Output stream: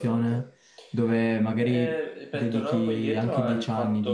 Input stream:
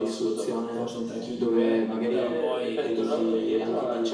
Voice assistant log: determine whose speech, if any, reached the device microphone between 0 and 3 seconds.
both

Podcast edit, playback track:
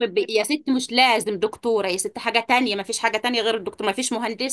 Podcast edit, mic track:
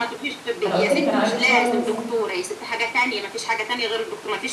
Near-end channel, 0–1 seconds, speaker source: both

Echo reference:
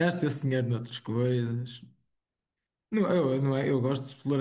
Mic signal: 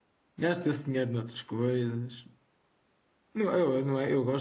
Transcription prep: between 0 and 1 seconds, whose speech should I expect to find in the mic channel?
echo only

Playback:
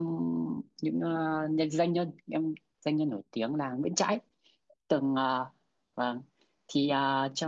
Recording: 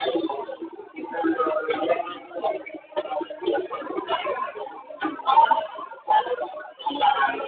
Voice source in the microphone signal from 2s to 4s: echo only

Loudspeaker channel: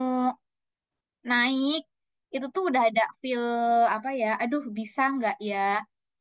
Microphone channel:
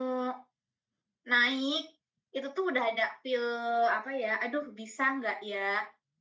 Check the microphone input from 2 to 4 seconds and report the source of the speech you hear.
echo only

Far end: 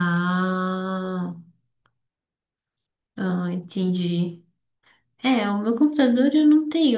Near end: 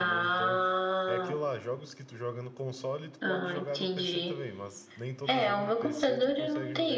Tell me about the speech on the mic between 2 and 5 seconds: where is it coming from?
both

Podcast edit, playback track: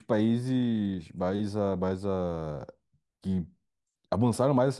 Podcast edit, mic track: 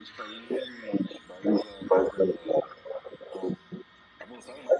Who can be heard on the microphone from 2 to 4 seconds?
echo only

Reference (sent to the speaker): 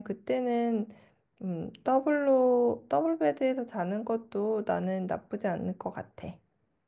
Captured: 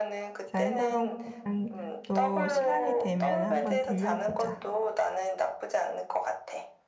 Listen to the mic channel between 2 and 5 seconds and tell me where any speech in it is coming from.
both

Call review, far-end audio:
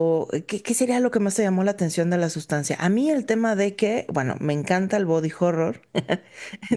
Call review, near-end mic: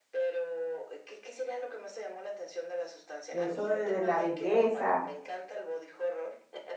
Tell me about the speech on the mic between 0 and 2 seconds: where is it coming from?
echo only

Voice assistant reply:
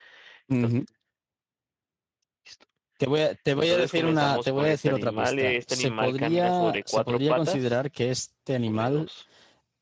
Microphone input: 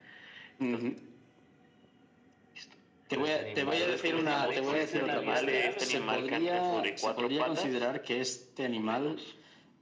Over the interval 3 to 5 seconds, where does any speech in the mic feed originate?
both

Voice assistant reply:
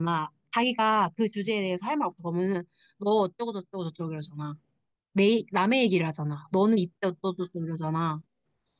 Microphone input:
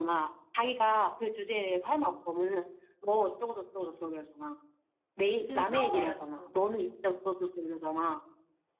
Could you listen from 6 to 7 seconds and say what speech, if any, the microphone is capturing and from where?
both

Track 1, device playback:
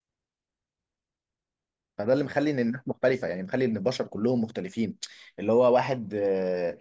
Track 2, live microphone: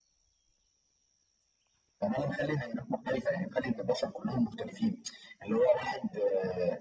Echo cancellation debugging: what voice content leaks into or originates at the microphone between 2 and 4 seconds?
echo only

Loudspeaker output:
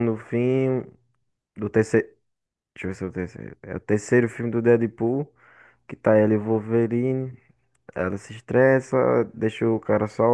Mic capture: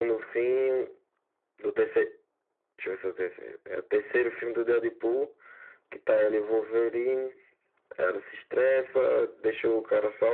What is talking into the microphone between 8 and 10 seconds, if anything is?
echo only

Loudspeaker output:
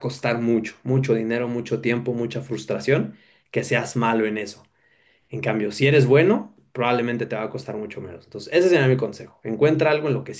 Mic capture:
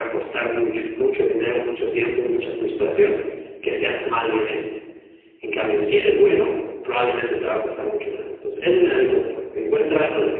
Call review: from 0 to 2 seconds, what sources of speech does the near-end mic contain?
echo only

